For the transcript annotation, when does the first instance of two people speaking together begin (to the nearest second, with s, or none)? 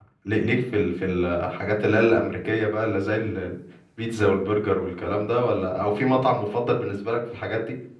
none